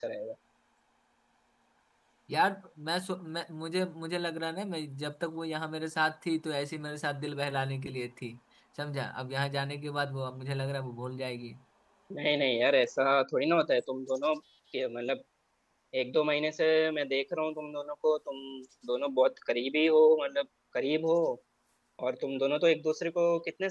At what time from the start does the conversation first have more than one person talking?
none

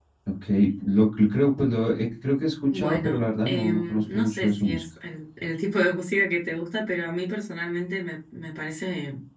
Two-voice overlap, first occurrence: 2.7 s

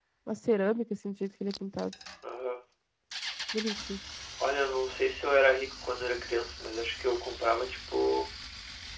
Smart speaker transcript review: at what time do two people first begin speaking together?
none

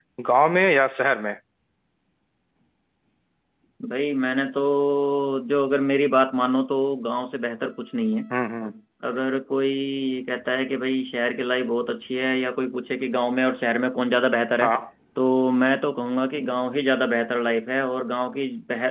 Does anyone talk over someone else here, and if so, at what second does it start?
none

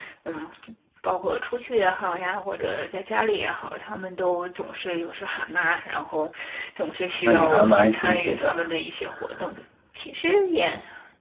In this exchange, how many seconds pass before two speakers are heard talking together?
7.2 s

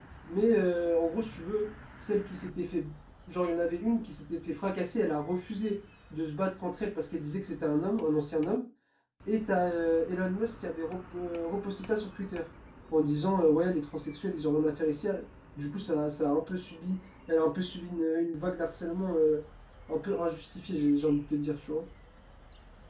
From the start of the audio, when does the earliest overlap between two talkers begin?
none

